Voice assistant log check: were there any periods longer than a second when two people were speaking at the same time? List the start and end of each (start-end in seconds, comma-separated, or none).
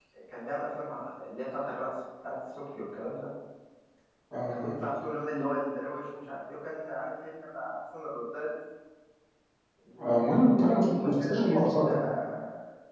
10.0-11.9